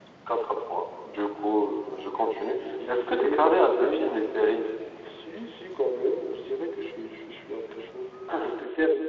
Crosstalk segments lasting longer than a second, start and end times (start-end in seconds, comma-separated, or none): 2.9-4.1